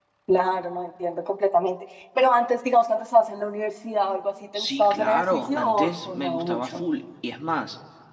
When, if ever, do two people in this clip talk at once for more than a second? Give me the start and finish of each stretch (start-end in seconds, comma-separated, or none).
4.5-6.8